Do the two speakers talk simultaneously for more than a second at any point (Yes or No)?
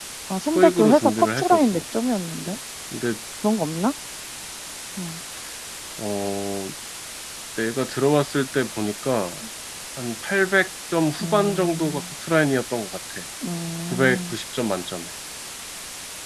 Yes